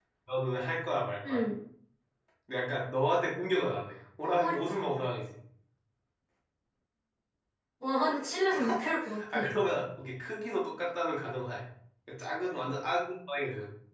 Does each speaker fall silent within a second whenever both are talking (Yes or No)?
Yes